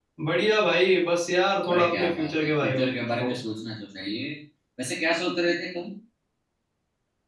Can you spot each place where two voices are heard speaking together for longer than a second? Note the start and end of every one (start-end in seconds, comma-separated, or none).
1.7-3.4